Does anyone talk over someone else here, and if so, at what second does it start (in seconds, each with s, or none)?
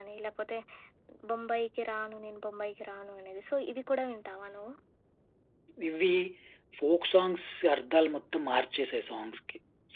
none